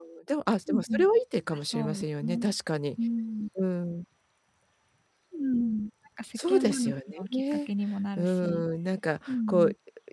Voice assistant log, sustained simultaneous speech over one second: present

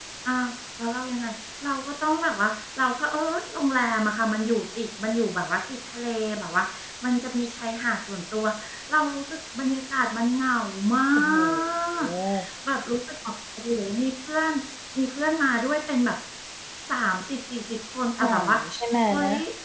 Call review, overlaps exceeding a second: none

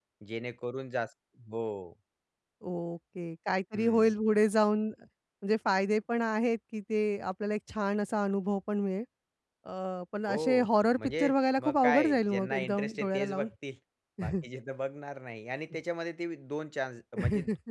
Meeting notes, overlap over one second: present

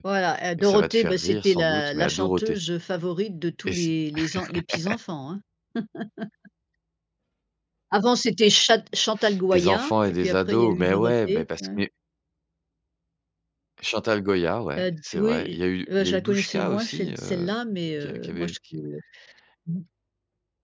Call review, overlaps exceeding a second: present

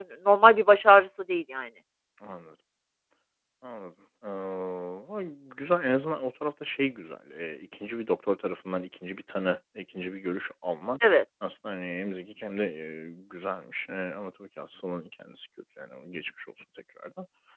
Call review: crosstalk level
none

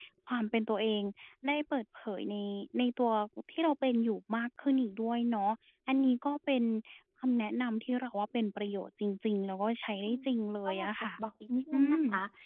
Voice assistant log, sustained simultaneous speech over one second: none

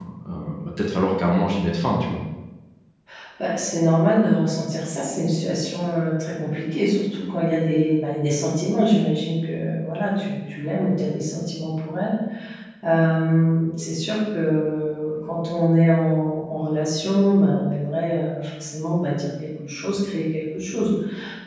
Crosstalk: none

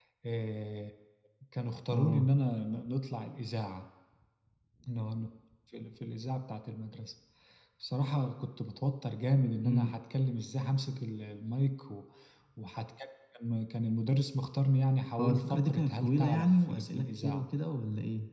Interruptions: present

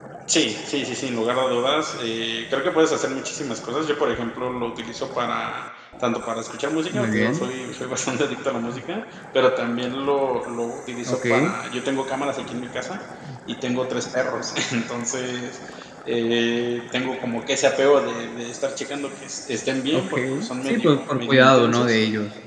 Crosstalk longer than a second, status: present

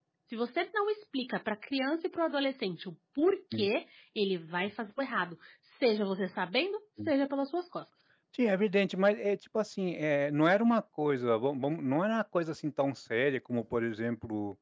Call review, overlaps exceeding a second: none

